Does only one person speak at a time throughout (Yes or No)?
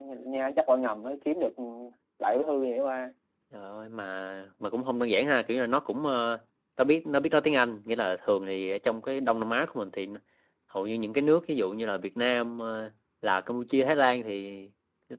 Yes